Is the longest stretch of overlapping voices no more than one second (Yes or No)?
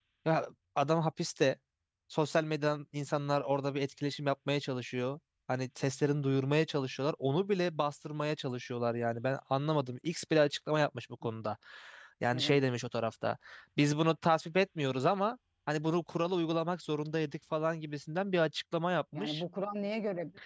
Yes